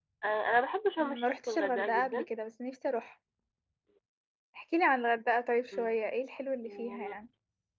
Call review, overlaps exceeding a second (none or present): present